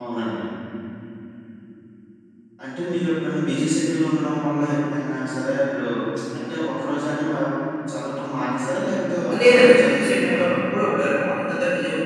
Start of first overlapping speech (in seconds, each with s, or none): 9.3 s